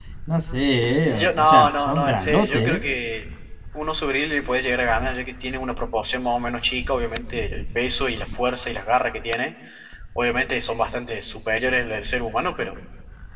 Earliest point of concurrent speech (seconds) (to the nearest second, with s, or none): 1 s